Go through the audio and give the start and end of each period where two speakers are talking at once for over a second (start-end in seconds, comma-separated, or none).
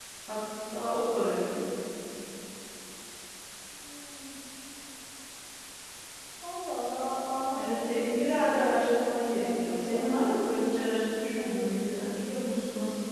7.5-10.4